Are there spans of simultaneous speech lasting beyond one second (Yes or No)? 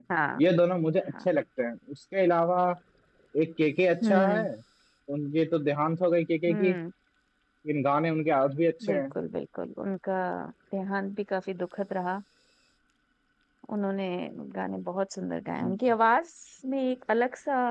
No